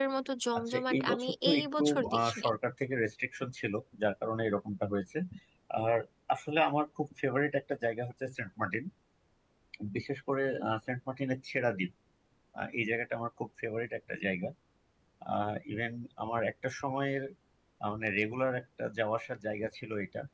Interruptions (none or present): present